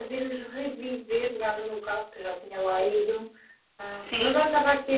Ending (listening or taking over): listening